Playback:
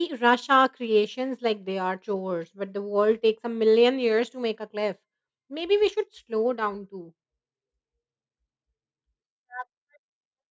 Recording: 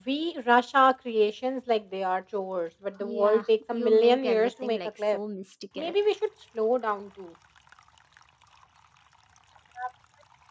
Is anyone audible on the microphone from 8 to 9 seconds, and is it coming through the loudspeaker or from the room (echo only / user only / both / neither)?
neither